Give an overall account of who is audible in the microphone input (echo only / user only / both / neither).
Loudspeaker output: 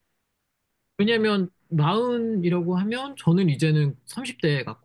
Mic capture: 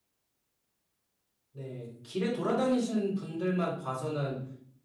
user only